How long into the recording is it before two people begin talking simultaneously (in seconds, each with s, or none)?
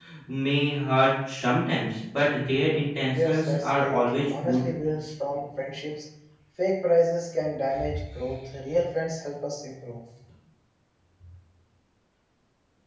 3.0 s